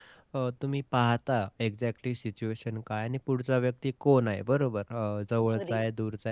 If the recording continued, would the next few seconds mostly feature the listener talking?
No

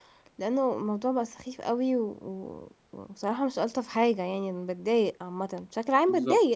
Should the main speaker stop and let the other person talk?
Yes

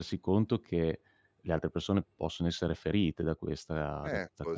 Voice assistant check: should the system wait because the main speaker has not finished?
No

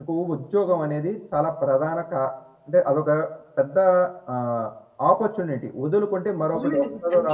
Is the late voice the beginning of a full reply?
Yes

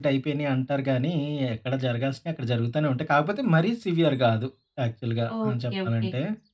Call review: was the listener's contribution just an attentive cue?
No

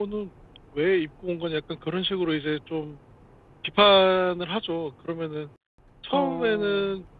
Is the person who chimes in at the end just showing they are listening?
Yes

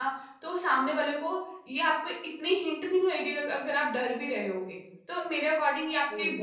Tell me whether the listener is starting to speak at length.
No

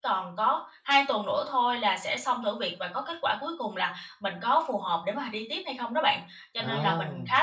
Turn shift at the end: No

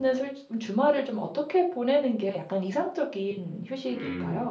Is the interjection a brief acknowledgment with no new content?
No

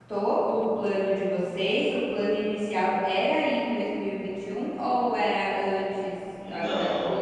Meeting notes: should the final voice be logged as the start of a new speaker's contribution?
Yes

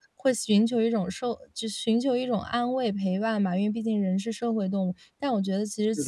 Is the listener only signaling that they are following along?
Yes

